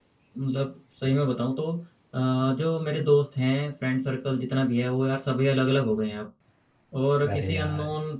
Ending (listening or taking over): listening